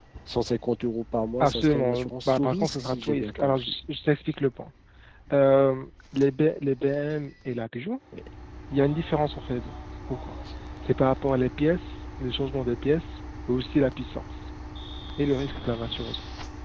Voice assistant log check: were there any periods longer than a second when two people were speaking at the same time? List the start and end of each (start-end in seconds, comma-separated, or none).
1.4-3.7